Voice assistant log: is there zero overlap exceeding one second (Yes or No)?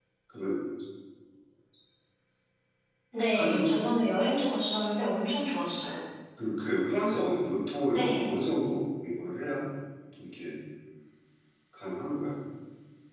Yes